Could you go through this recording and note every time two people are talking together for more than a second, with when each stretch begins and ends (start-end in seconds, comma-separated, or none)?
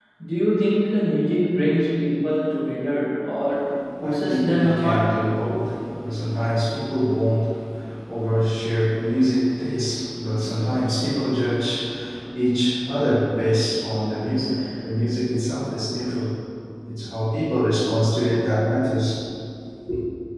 4.0-5.2